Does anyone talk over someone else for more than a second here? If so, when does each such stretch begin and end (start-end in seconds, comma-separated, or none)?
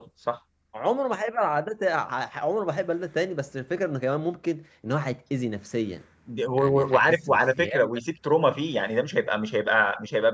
6.6-7.9